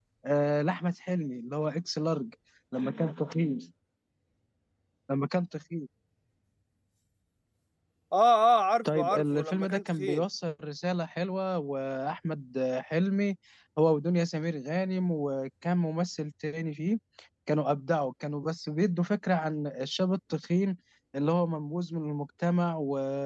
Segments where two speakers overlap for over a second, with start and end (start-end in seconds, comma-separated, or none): 8.9-10.2